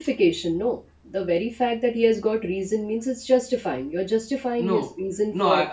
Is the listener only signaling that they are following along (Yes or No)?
No